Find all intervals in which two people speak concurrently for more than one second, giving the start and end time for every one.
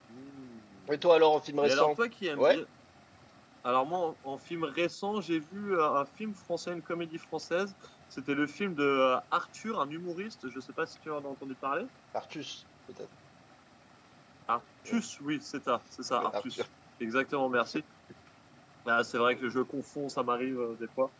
none

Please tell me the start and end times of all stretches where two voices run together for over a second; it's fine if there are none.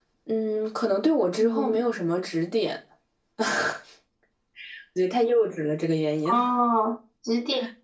none

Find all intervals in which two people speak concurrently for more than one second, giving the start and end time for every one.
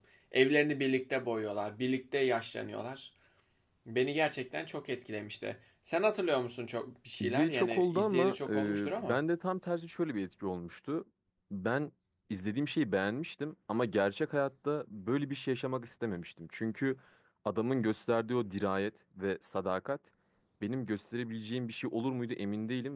7.2-9.2

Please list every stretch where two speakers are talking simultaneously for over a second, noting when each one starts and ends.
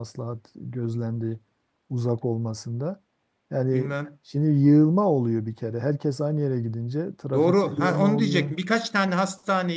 7.3-8.5

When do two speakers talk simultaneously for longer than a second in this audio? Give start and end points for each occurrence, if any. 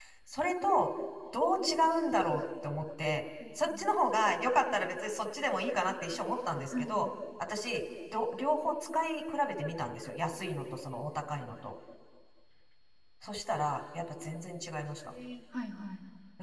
none

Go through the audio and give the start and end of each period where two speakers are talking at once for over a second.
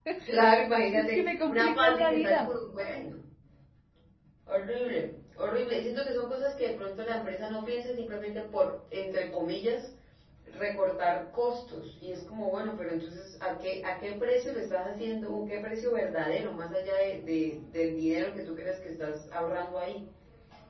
0.9-2.5

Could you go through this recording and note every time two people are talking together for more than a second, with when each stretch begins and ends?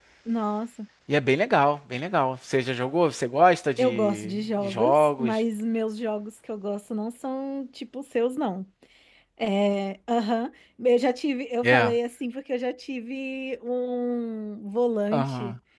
3.8-5.4

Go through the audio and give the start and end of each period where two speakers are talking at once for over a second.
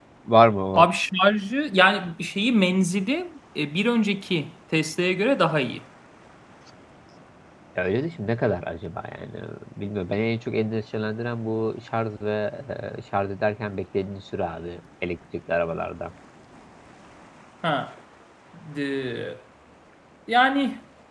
none

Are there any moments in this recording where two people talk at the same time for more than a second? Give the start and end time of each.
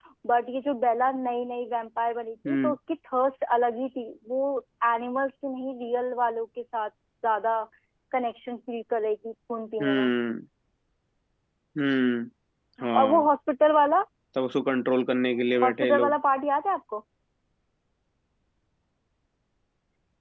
none

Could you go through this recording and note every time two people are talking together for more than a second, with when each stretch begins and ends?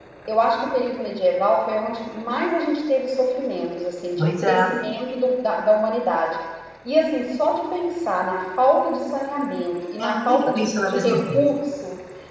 10.2-11.5

